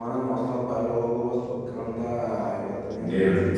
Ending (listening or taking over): taking over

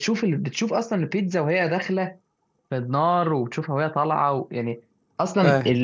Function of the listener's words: listening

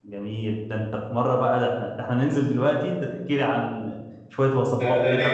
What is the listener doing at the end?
taking over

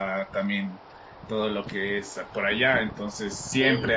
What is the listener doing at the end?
listening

